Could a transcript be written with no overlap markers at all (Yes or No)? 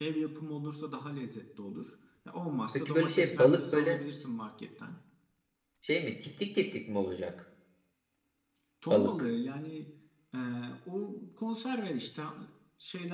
No